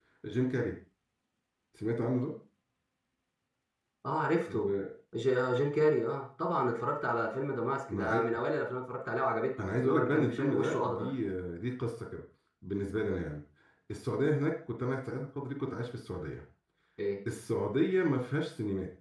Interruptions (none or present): present